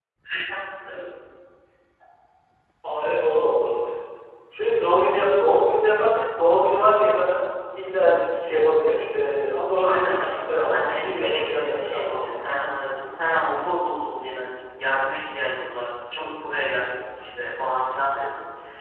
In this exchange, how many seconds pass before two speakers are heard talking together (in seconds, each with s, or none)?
9.8 s